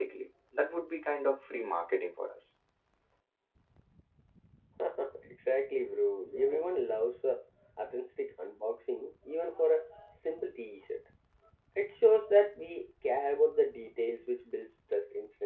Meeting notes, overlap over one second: none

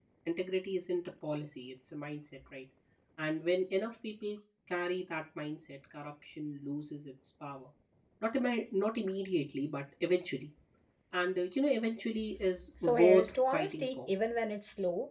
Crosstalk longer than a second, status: present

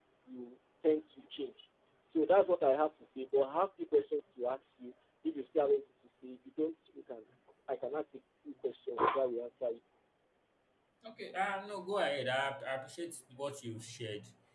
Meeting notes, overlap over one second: none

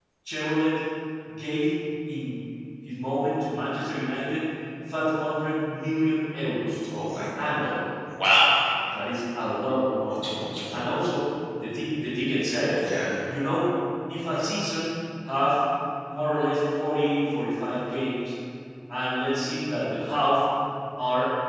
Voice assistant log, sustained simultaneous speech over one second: none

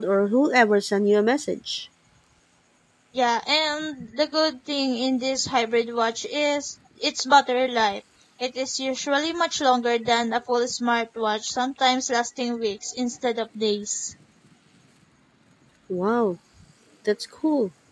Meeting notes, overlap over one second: none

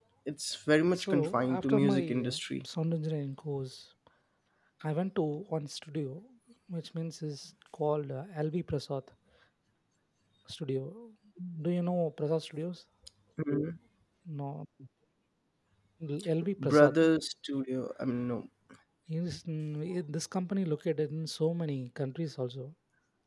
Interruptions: present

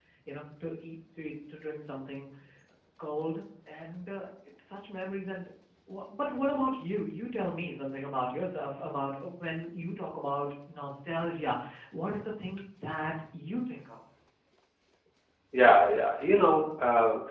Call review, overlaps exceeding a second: none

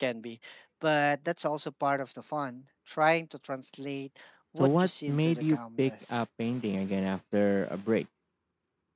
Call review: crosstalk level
present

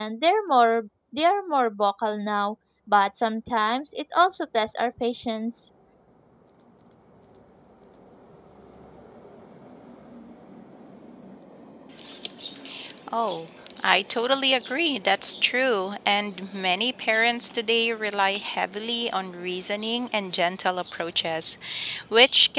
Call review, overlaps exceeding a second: none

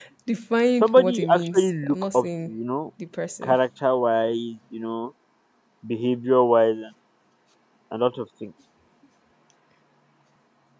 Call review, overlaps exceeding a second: present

